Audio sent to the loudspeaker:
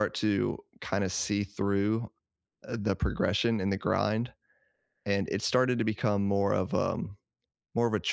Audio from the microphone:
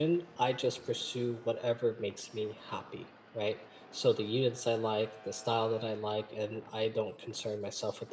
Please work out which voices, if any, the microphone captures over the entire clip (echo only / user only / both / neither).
user only